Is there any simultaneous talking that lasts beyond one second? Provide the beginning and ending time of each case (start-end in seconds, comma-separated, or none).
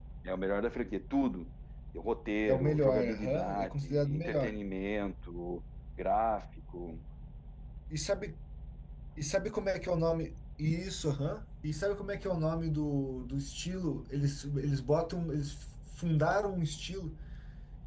2.5-4.6